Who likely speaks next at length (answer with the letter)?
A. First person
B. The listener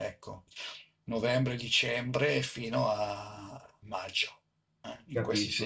B